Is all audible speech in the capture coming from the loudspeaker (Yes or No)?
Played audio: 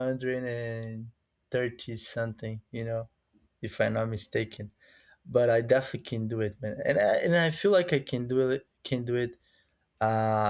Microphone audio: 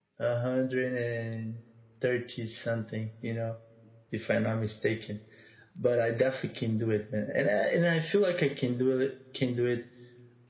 Yes